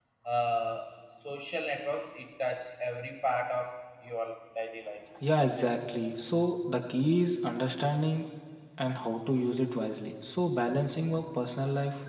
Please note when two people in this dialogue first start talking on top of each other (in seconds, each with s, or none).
none